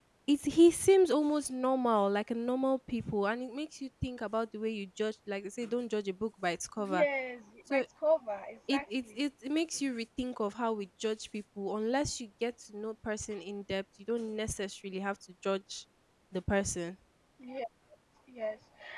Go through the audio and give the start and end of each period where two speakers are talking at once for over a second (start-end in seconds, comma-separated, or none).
none